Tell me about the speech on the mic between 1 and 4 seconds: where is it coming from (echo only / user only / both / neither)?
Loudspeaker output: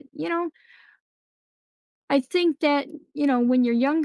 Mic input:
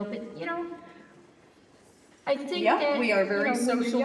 both